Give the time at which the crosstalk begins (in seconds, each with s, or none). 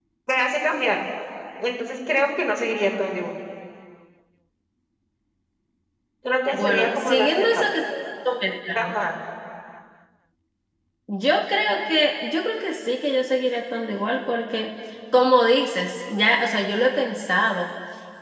6.5 s